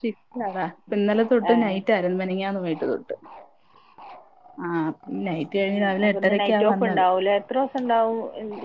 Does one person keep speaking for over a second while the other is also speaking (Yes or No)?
Yes